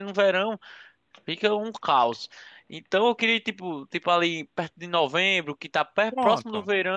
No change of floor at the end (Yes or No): Yes